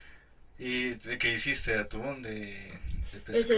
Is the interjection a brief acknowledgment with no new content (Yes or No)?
No